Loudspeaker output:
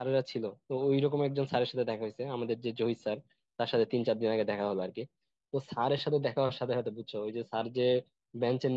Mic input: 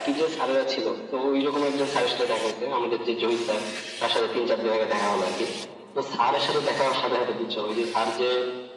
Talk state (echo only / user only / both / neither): echo only